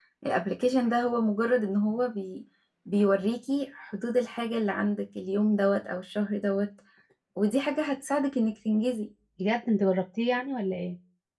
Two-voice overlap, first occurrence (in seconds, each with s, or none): none